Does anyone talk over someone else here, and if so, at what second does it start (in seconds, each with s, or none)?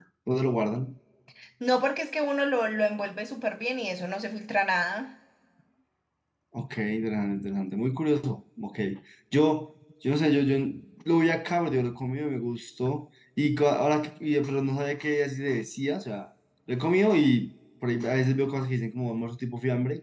none